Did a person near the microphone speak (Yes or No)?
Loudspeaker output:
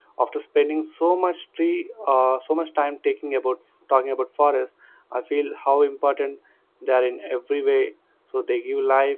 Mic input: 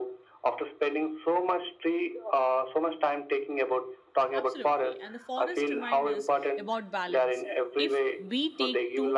Yes